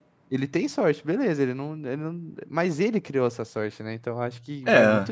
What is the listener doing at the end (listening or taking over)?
listening